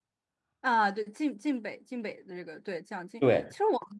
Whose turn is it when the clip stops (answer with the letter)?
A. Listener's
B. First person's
B